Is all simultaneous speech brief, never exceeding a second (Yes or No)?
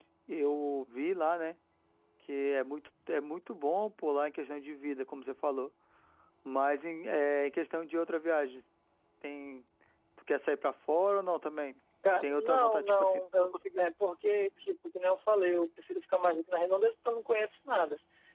No